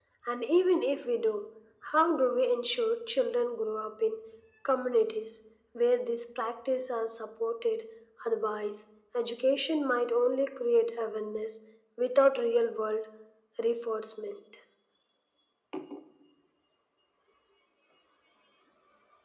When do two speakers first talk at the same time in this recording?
none

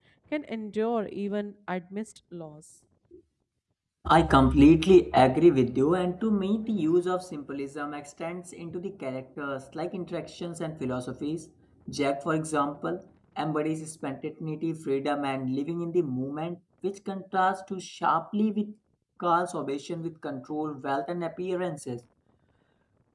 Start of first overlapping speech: none

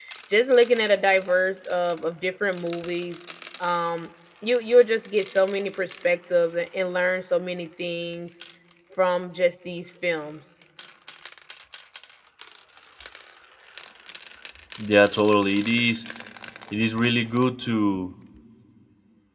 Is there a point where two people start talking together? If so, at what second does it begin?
none

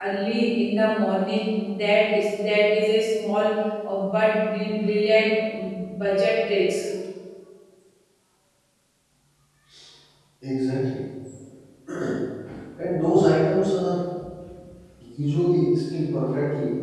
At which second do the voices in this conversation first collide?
none

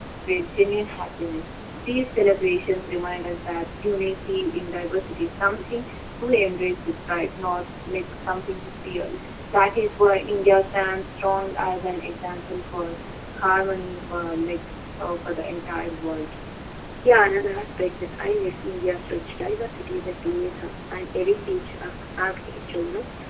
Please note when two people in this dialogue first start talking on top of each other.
none

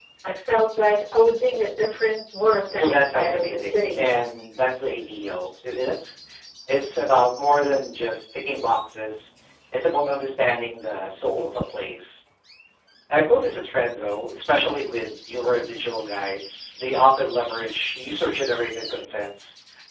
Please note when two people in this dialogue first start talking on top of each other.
2.7 s

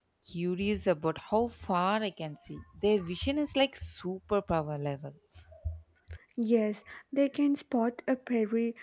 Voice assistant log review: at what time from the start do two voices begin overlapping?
none

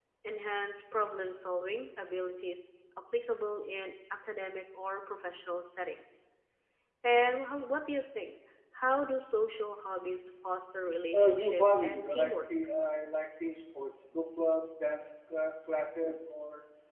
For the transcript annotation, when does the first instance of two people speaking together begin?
11.1 s

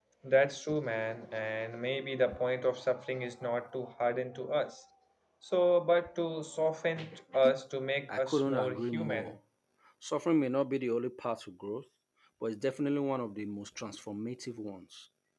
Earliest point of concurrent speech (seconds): 8.1 s

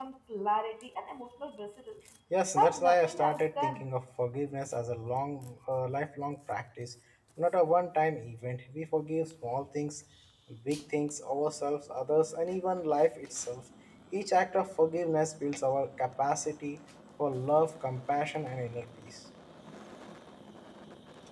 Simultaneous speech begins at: 2.5 s

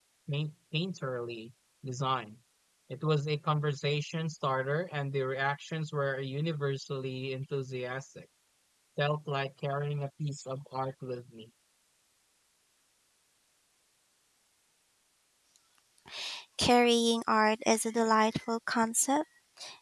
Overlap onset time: none

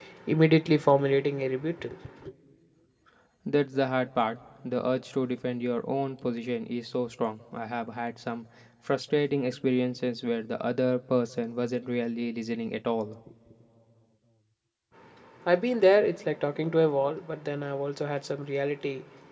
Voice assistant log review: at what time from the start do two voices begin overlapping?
none

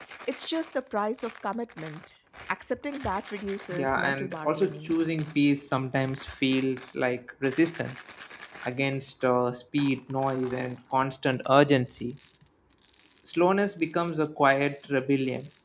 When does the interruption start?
3.7 s

